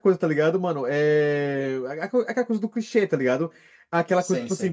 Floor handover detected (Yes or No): No